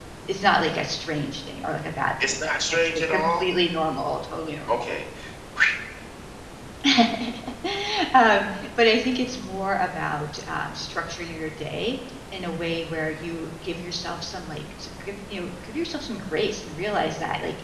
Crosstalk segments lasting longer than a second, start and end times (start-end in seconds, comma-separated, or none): 2.2-3.4